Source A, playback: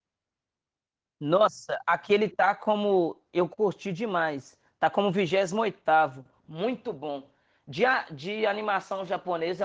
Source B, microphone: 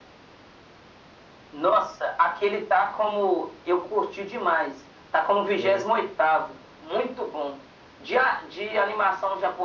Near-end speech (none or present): present